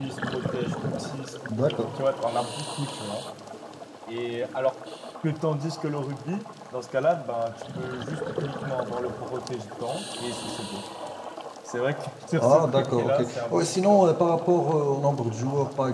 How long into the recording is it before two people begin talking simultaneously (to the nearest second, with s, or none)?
12 s